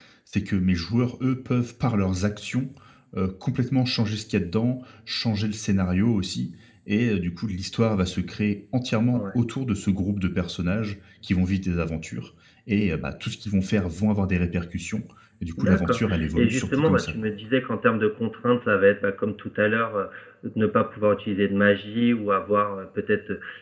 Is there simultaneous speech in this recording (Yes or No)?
Yes